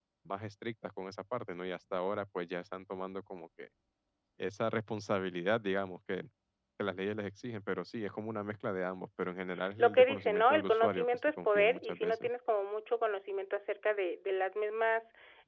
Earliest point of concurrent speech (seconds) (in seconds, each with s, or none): 9.8 s